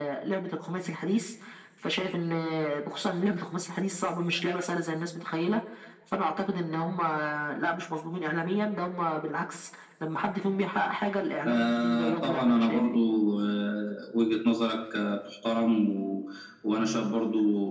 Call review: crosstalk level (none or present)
present